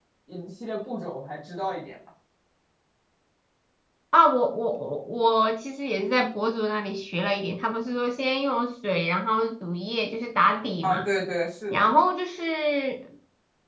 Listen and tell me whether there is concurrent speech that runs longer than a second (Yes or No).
No